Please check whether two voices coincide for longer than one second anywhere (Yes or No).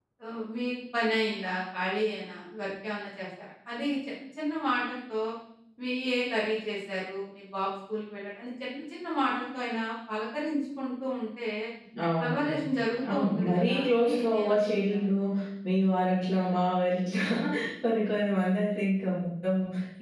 Yes